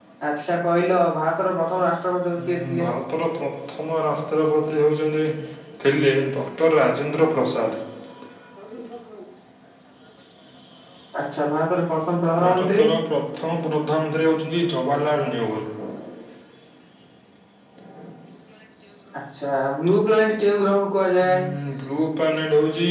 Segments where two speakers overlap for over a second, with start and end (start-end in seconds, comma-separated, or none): none